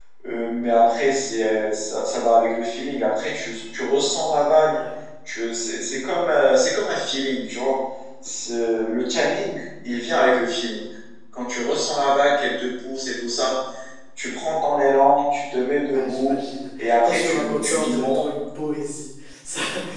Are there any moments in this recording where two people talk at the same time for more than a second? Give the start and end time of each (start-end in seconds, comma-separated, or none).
17.0-18.3